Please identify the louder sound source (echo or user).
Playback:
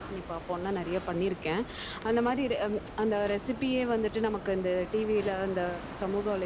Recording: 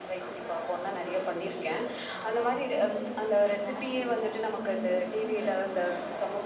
echo